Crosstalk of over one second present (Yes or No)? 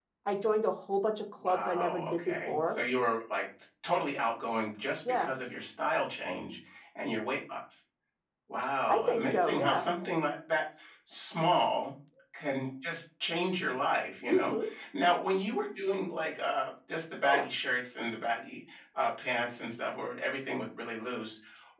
Yes